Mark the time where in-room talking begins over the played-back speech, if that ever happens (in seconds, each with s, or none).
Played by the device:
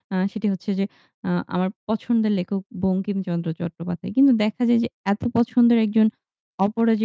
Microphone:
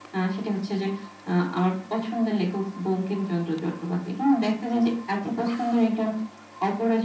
none